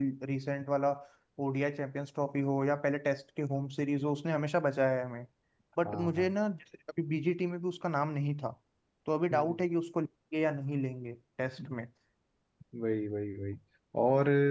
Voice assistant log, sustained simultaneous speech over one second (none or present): none